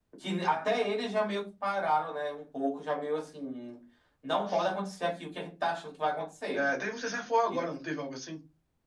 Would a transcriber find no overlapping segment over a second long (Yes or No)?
Yes